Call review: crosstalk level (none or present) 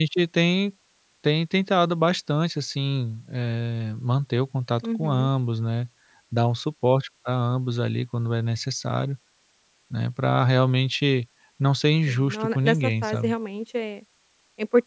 present